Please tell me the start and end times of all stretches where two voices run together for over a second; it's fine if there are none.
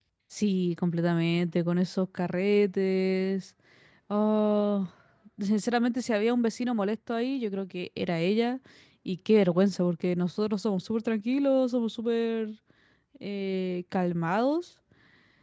none

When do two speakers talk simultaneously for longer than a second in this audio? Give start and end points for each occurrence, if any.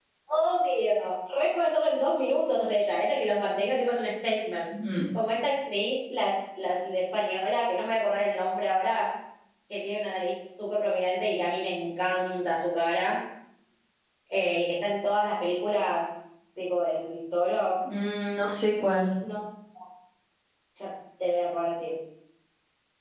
none

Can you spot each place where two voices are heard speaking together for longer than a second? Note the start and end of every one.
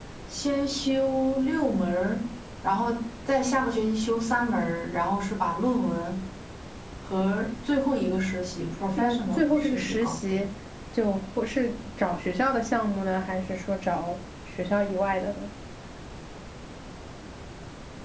8.9-10.4

